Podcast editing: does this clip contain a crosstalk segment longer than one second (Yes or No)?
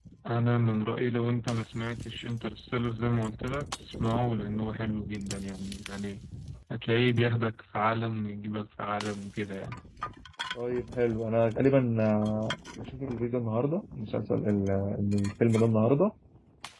No